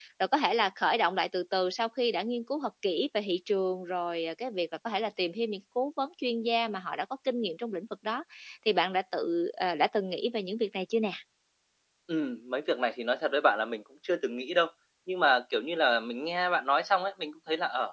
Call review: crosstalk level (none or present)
none